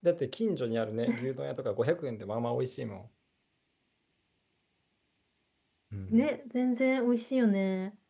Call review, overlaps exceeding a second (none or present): none